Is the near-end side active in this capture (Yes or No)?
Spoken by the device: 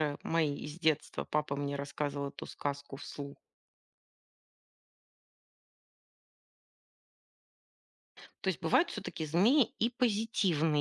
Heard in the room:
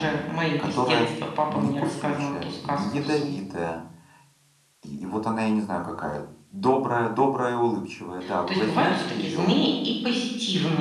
Yes